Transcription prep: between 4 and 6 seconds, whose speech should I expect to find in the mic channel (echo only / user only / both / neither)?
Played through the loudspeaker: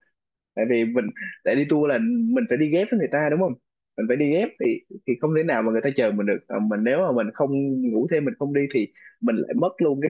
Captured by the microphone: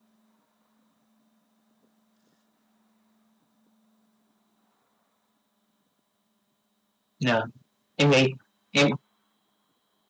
neither